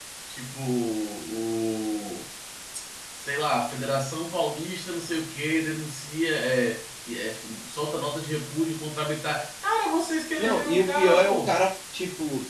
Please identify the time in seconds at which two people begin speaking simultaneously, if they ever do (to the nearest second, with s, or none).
10 s